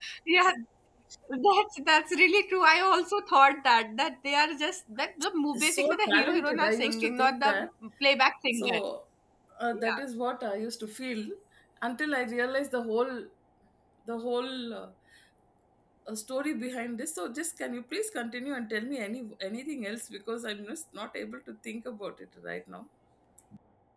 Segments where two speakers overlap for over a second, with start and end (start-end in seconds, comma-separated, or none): 5.5-7.5